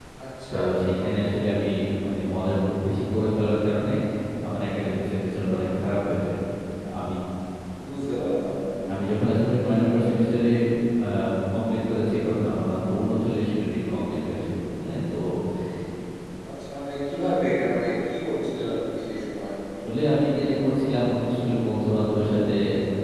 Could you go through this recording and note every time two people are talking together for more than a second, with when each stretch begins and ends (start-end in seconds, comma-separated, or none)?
none